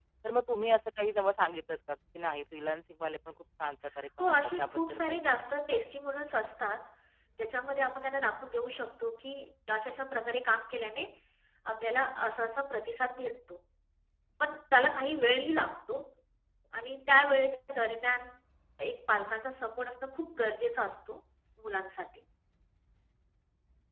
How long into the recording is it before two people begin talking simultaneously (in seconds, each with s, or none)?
4.2 s